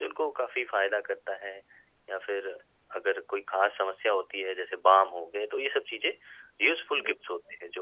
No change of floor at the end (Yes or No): Yes